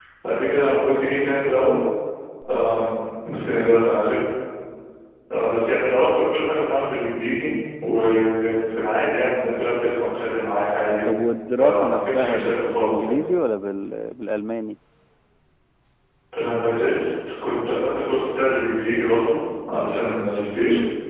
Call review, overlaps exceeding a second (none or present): present